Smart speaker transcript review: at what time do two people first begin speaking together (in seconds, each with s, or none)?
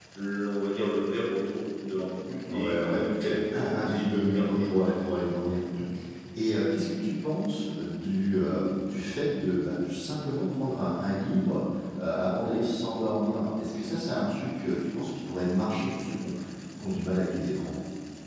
2.5 s